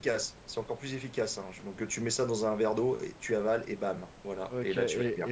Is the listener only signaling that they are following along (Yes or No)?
No